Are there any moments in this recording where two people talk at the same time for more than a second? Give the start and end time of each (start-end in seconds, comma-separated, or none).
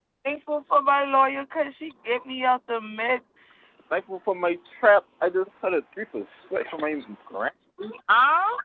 none